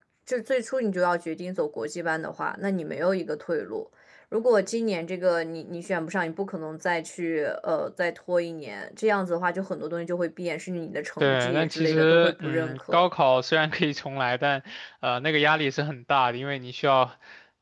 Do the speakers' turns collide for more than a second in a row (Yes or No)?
Yes